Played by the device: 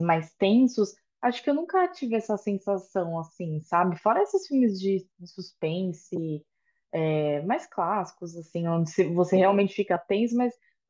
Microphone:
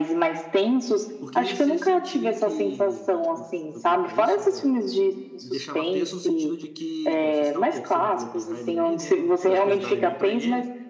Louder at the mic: echo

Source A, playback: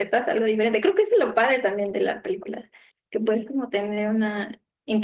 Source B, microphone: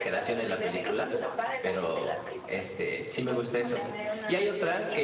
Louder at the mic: user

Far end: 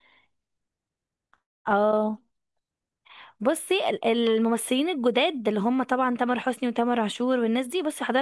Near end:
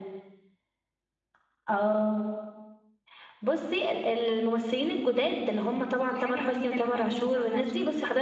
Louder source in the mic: echo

